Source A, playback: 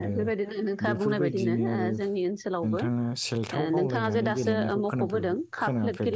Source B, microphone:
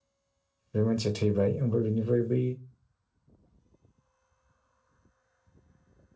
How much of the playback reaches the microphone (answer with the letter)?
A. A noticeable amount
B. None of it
B